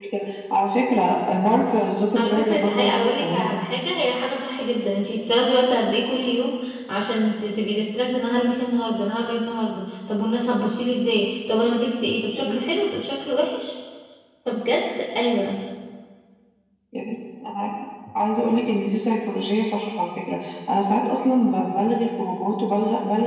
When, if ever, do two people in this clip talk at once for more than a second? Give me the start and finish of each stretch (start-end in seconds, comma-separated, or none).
2.1-3.5